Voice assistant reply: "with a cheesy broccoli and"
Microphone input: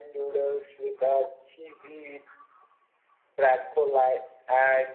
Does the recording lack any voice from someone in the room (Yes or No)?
Yes